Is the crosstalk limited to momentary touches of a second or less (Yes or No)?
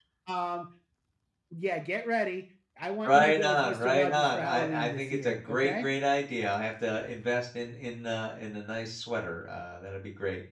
No